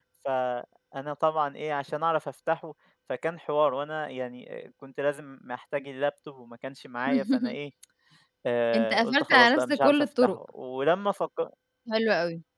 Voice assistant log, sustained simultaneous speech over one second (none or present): present